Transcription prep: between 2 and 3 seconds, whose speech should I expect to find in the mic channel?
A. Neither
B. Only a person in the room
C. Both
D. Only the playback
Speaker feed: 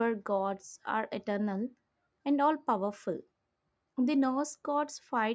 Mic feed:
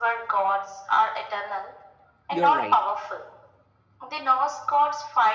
C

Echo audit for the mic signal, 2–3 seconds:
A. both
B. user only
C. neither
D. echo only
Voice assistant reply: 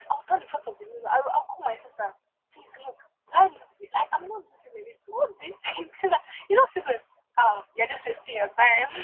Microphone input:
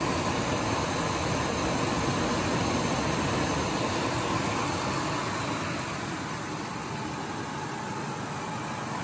C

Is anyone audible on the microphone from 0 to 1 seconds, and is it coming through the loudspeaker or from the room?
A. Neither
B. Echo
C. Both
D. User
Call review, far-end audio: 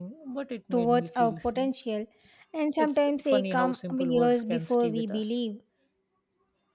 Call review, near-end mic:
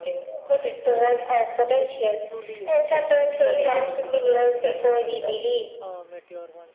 B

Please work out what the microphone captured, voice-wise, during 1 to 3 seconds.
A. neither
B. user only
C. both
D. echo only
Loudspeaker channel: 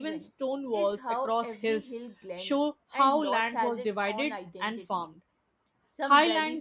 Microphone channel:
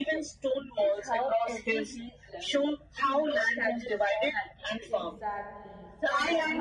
D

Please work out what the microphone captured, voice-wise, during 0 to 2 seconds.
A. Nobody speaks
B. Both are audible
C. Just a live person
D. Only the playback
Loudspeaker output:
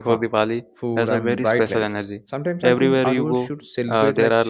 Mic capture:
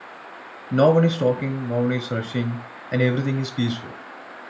C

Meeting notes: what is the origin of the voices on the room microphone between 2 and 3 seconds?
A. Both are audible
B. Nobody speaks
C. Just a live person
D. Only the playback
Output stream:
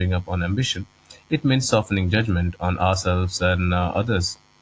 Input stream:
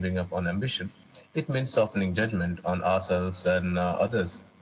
D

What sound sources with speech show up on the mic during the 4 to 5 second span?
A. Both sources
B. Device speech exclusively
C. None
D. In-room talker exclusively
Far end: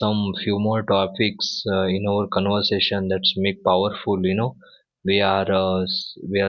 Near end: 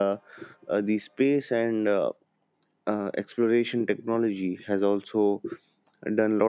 D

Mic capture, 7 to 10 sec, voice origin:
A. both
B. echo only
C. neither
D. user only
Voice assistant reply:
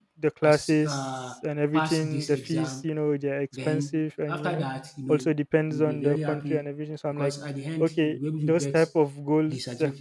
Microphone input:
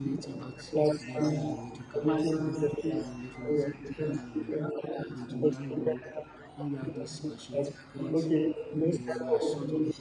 A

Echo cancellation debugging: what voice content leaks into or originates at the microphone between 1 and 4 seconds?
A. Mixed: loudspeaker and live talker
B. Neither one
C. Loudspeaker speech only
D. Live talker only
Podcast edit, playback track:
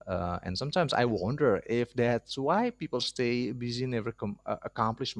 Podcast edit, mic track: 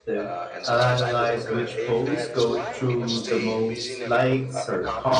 A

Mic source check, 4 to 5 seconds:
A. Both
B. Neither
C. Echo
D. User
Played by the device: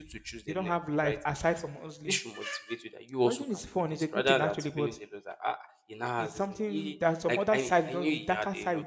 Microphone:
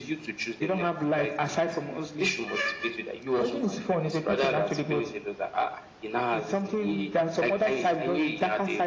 C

